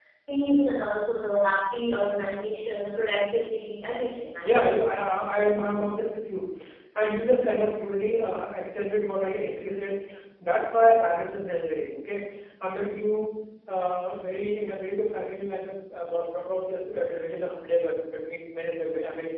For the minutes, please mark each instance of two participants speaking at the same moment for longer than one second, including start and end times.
none

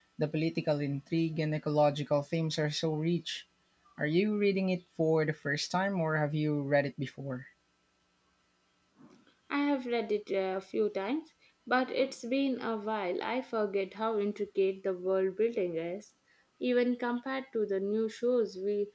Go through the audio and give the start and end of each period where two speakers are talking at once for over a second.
none

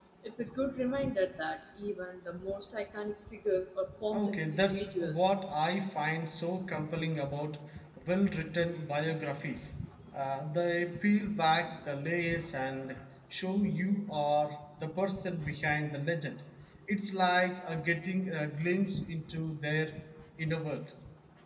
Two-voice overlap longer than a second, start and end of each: 4.1-5.3

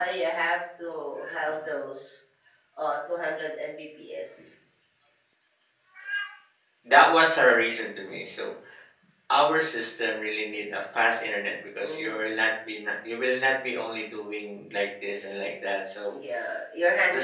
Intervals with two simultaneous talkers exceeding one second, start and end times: none

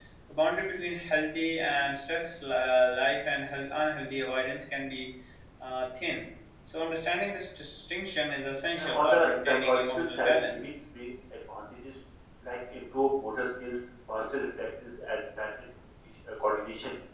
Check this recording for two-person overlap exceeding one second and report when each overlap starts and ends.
8.8-10.7

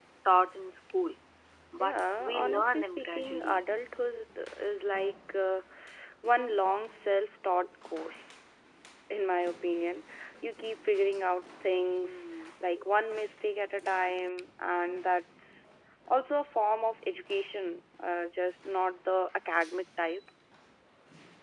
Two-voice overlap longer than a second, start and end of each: 1.8-3.6

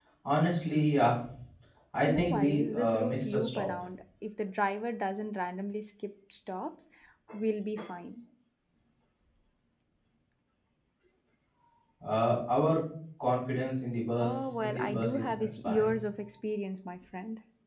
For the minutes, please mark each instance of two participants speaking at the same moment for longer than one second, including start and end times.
2.1-3.7, 14.2-16.0

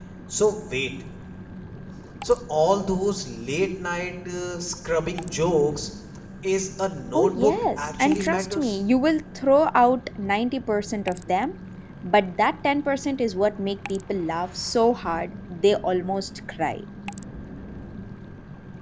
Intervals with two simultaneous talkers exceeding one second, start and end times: 7.1-8.8

